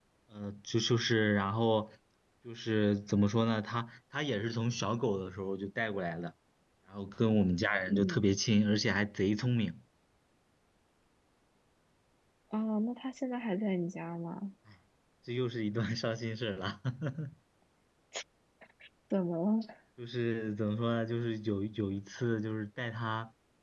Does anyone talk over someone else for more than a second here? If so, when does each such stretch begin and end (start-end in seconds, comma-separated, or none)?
none